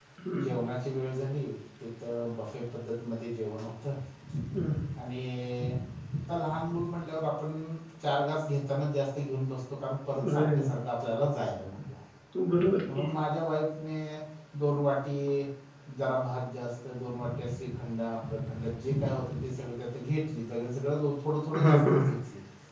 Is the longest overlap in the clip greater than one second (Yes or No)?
No